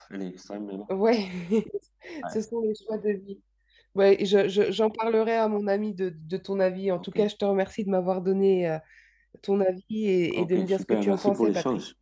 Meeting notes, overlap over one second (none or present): present